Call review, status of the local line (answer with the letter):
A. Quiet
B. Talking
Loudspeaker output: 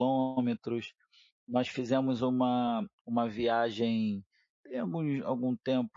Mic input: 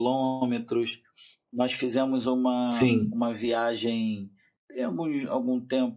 B